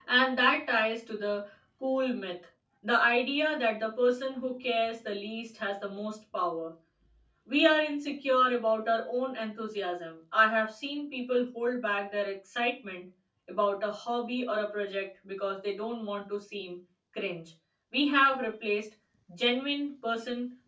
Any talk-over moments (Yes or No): No